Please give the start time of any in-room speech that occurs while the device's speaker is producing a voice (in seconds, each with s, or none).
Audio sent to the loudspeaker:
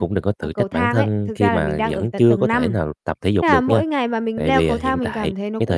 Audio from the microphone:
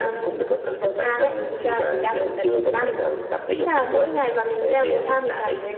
none